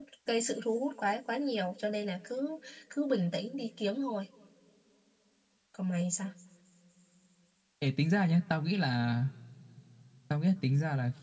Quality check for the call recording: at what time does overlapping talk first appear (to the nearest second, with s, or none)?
none